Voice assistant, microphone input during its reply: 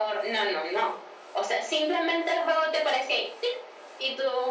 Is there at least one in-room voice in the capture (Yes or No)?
No